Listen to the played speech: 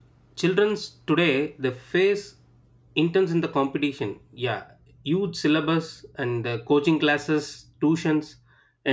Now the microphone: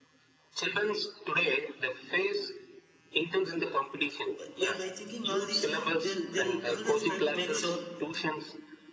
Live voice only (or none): by, by by thinking all these they'll they'll always try to make sure